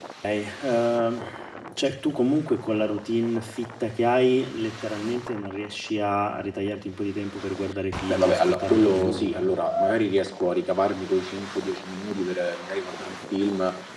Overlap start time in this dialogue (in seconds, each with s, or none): 8.1 s